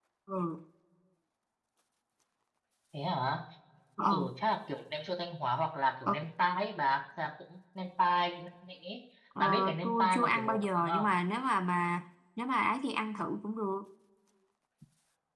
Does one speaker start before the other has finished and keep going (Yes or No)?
Yes